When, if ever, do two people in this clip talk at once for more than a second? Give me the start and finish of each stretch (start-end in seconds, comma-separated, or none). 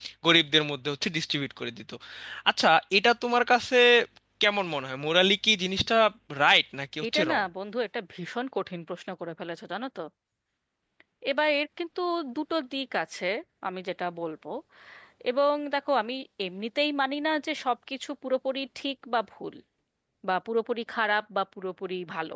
none